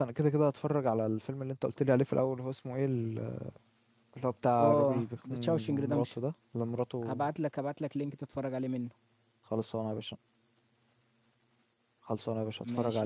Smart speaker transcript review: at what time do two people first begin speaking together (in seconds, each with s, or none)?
4.6 s